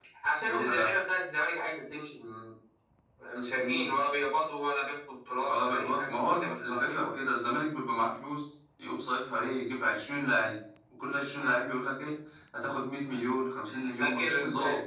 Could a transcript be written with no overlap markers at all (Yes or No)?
No